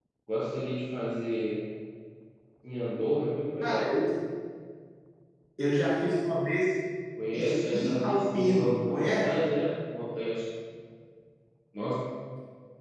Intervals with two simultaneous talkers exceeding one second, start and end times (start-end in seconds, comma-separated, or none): 7.3-9.3